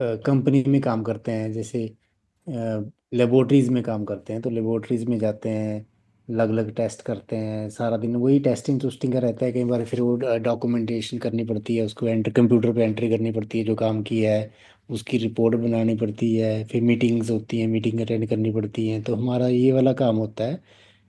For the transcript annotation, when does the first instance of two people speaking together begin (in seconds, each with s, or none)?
none